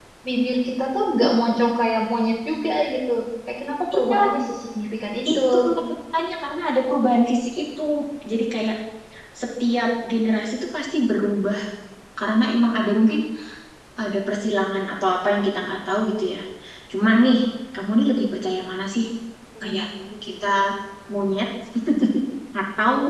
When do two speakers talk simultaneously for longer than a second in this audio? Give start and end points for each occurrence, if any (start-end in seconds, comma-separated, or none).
none